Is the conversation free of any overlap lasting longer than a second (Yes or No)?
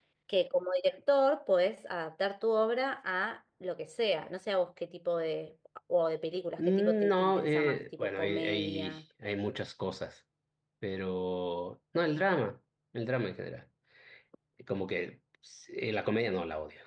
No